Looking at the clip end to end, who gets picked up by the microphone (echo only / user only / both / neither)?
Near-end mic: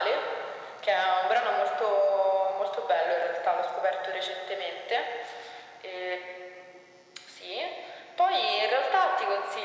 echo only